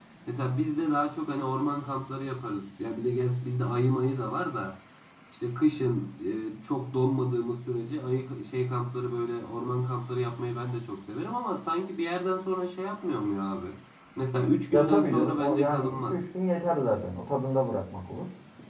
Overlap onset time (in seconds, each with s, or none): 14.7 s